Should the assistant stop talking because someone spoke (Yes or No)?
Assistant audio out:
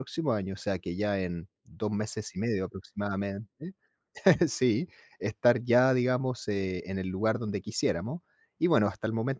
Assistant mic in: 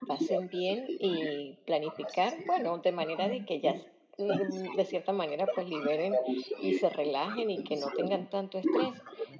Yes